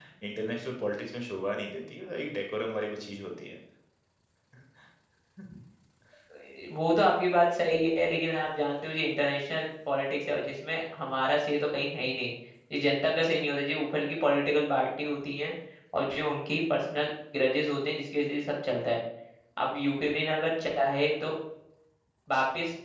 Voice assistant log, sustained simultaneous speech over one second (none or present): none